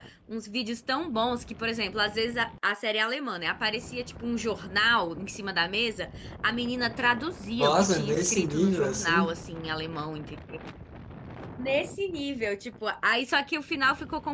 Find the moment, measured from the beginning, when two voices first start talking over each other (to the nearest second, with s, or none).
8 s